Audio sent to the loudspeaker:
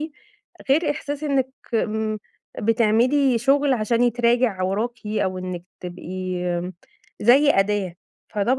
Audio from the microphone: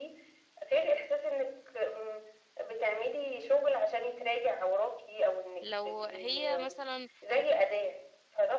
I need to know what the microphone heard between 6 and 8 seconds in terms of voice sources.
both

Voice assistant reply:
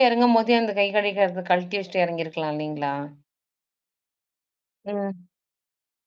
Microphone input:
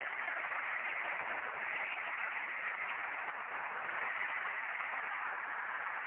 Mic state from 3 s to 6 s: neither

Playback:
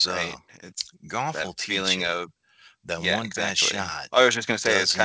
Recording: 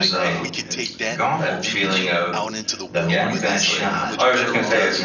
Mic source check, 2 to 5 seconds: both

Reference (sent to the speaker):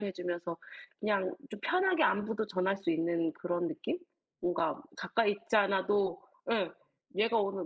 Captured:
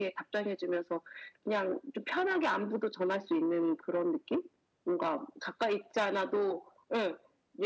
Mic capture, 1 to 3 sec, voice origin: echo only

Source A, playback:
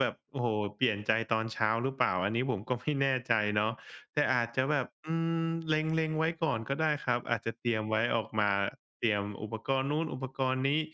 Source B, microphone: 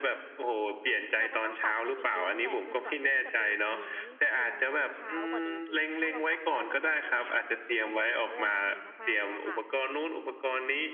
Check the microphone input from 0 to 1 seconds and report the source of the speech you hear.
echo only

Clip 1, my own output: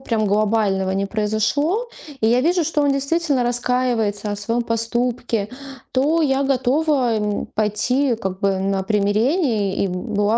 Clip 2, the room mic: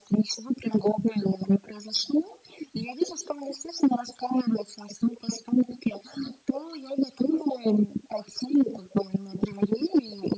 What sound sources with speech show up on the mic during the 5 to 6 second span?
echo only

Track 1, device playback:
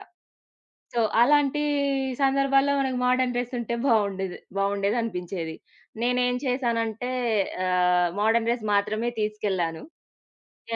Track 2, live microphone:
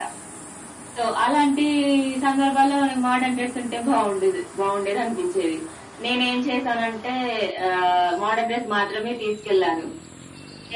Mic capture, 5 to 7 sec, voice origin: echo only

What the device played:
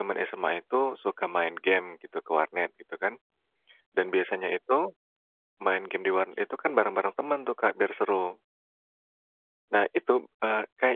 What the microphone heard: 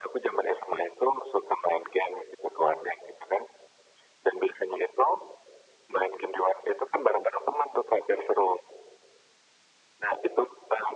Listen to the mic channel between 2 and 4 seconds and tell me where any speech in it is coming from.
echo only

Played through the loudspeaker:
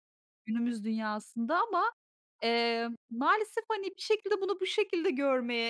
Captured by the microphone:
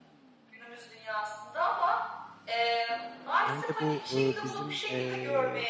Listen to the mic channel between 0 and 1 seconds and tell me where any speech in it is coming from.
echo only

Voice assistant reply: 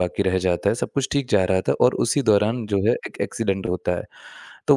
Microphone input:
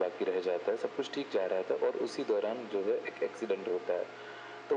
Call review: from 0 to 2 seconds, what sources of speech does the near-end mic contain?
echo only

